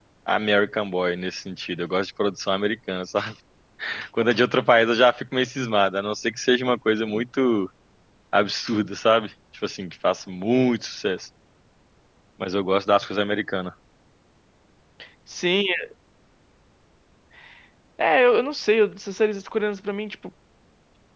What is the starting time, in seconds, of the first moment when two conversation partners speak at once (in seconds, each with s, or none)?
none